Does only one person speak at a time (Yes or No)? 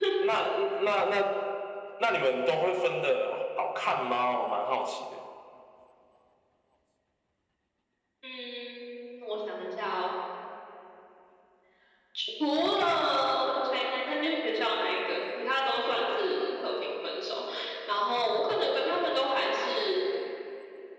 Yes